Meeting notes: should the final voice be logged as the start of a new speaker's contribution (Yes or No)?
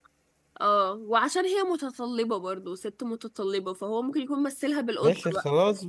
Yes